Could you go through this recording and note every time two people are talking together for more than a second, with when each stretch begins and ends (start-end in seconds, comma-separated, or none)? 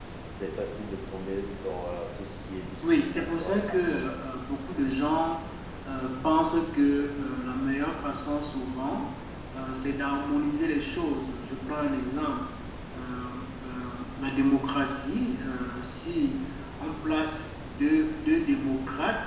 2.8-4.1